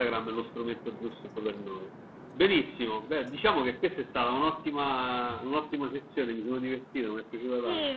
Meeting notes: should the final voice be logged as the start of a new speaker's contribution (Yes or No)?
Yes